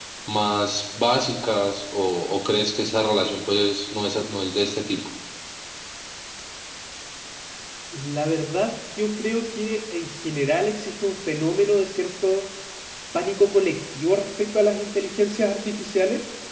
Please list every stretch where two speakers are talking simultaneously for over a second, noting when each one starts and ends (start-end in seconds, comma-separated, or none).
none